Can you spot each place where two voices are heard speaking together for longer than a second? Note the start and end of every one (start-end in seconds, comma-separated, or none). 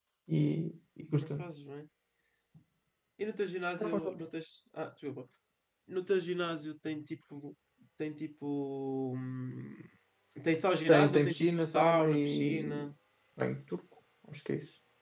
10.9-12.9